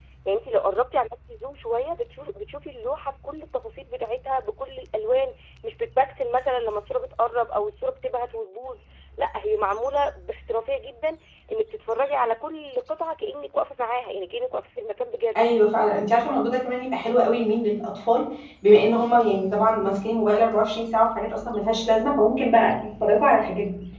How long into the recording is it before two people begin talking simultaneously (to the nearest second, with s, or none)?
none